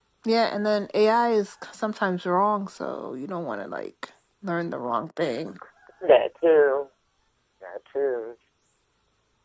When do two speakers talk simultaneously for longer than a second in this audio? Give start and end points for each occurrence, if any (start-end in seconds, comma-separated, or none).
none